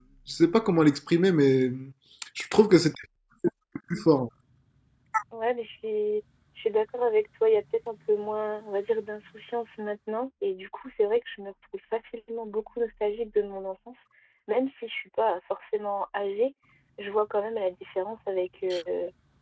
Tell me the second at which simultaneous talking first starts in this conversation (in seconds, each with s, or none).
none